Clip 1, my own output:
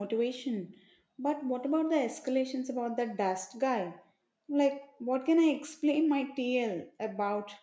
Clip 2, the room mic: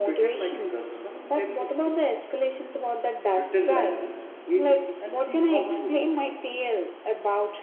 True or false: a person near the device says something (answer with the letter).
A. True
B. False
A